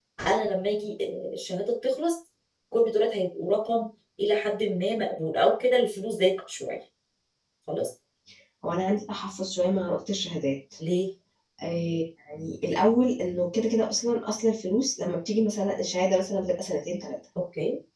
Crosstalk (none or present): none